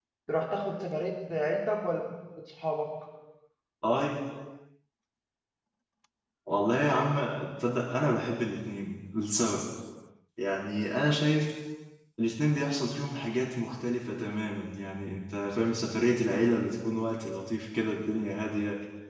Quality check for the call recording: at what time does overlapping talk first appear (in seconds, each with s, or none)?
none